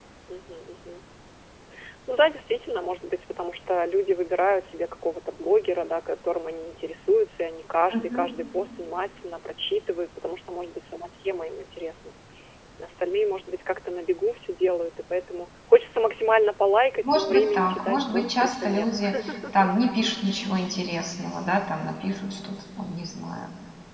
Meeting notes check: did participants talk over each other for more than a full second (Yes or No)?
Yes